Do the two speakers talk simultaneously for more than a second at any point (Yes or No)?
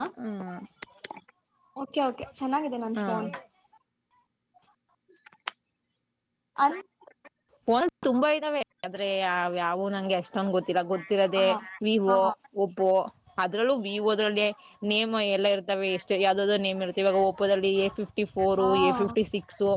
No